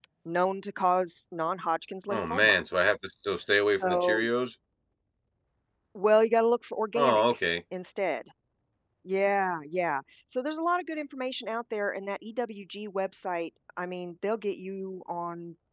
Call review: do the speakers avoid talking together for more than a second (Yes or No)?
Yes